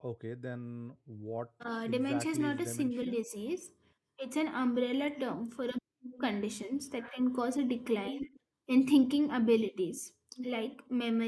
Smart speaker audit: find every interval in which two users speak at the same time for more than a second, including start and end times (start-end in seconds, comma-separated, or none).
1.8-3.2